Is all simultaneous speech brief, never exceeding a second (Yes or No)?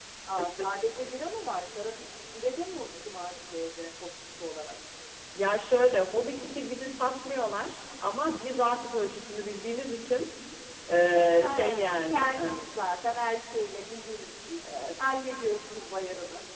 No